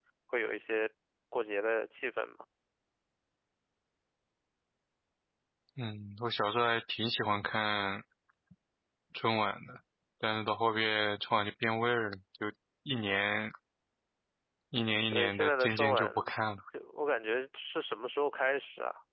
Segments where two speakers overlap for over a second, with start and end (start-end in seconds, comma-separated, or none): 15.1-16.3